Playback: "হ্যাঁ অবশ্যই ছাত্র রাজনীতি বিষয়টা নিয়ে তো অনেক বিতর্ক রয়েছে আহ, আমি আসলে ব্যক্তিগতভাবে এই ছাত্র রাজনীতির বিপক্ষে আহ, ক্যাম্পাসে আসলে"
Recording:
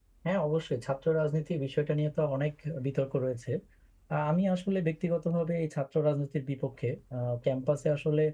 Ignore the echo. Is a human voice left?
No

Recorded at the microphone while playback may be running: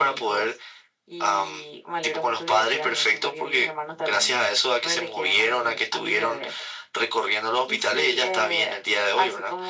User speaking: No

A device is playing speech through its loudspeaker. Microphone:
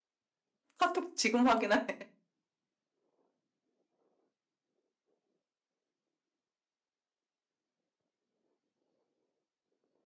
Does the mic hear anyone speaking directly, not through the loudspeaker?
Yes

